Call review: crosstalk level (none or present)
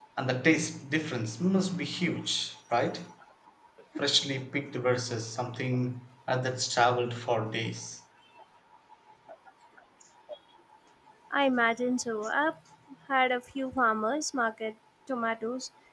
none